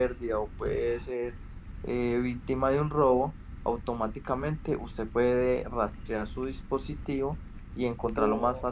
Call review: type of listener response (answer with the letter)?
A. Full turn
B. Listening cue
A